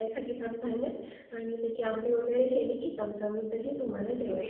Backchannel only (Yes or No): No